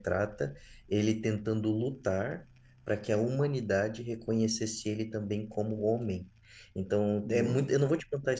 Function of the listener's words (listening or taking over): listening